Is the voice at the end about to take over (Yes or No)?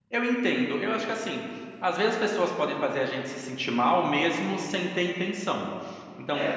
No